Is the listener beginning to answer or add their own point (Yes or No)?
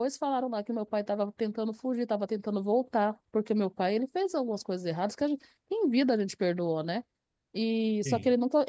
No